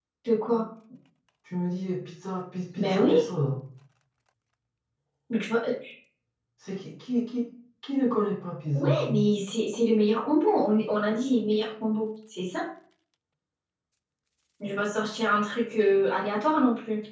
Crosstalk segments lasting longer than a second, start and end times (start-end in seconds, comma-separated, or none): none